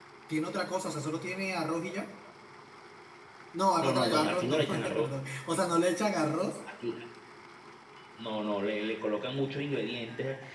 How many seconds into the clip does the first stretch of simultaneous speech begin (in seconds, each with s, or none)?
3.8 s